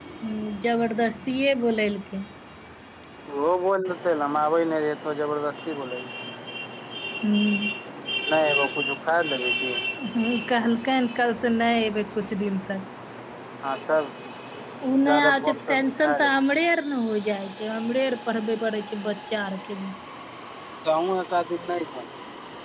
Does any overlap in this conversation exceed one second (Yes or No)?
Yes